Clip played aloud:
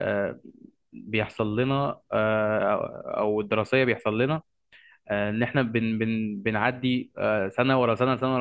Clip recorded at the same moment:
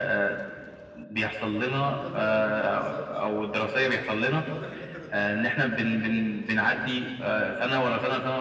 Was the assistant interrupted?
Yes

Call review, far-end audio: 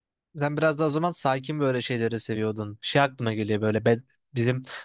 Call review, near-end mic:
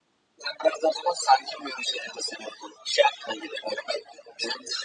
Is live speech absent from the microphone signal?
Yes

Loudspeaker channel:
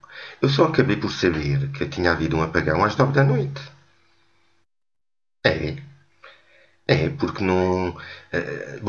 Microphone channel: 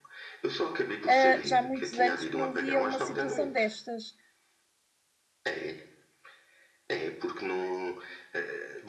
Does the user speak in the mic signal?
Yes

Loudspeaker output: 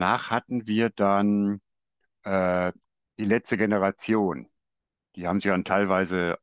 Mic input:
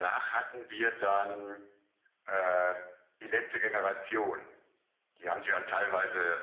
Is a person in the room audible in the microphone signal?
No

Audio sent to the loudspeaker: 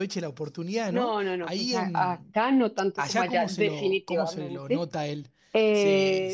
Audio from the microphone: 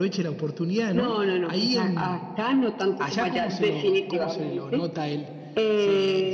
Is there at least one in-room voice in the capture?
No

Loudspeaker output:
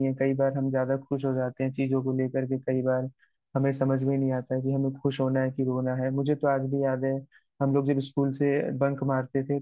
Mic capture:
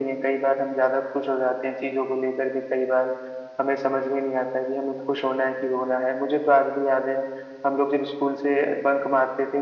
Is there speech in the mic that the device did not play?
No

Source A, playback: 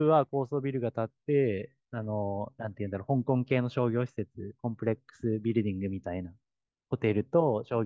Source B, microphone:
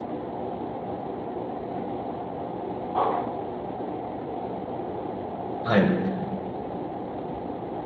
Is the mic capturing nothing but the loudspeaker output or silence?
No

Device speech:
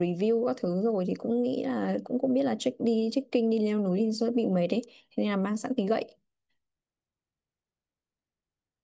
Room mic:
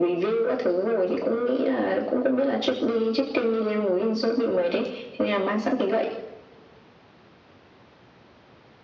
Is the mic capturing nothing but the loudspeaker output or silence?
Yes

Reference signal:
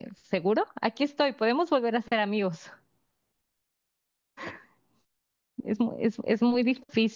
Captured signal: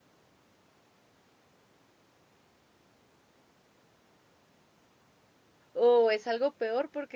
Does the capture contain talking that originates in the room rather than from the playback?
Yes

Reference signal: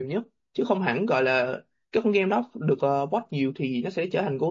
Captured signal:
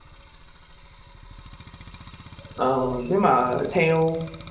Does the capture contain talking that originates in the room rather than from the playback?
Yes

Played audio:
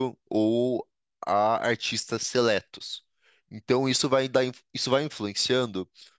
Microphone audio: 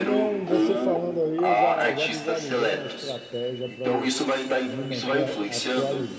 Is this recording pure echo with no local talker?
No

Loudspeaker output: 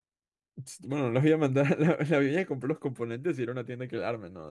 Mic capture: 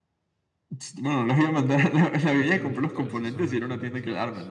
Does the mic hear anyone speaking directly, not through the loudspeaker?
Yes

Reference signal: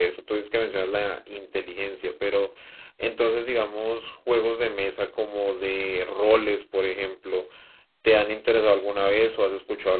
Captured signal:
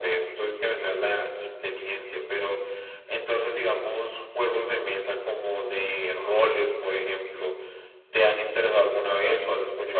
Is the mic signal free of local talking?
Yes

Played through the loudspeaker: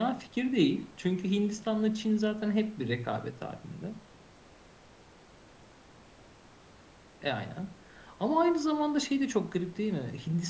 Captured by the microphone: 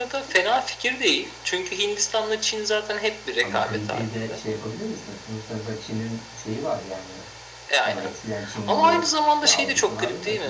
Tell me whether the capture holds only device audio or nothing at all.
No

